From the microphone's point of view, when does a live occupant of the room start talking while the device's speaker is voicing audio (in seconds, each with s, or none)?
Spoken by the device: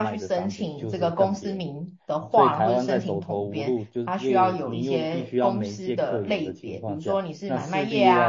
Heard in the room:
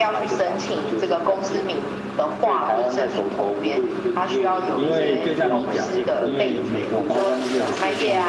4.7 s